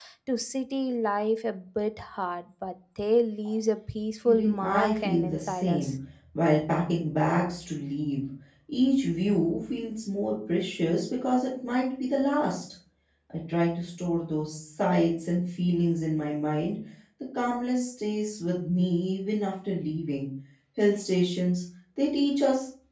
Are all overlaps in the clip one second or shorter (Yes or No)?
No